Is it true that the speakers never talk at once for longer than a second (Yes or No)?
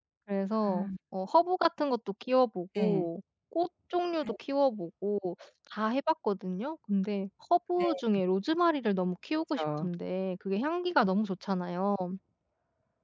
Yes